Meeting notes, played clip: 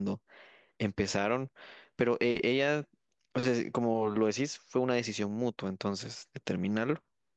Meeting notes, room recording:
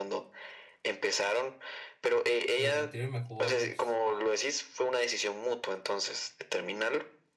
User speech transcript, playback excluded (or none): pues, a sentirme mejor, pues